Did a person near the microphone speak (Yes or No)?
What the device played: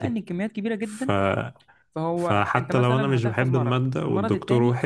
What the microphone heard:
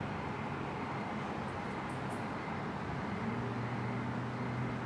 No